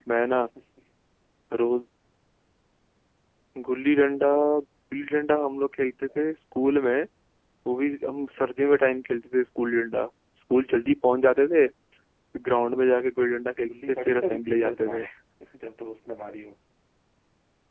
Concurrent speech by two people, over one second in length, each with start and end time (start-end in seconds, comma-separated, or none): 13.7-15.0